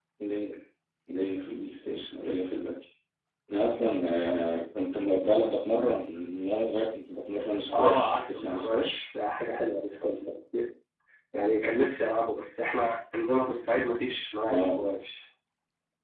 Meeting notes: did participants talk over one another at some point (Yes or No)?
Yes